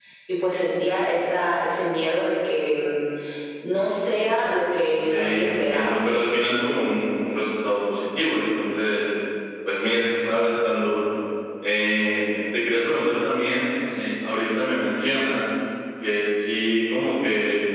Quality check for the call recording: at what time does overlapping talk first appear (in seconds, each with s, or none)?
4.9 s